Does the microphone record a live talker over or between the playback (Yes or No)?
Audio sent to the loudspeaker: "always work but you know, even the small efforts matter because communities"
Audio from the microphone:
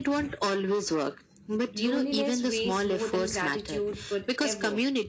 Yes